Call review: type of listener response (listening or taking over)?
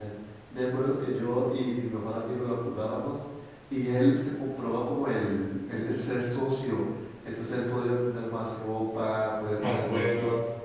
listening